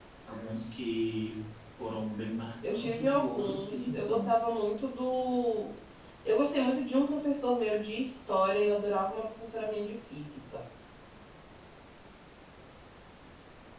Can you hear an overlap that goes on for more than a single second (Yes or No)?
Yes